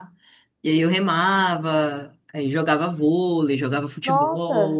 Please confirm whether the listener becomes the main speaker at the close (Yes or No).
Yes